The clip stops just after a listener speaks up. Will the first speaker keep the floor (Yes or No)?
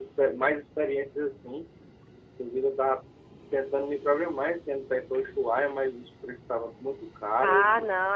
No